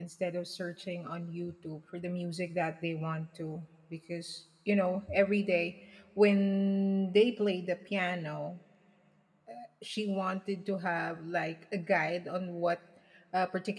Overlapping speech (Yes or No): No